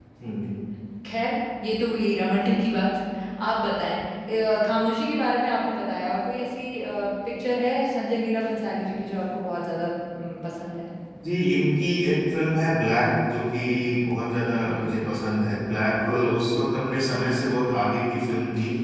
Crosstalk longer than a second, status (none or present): none